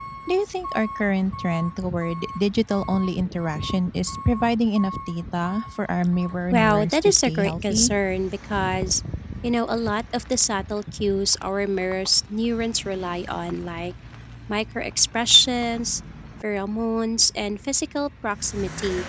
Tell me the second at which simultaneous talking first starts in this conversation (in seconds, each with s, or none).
6.5 s